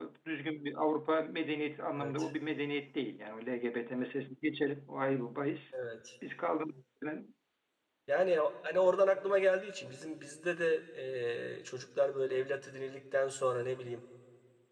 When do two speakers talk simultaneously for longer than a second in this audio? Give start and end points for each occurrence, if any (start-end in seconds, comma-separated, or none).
none